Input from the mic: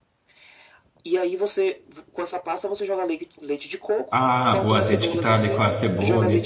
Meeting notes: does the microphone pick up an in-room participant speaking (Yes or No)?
Yes